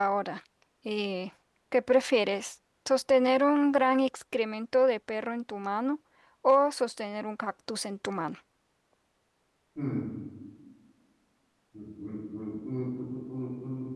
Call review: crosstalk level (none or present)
none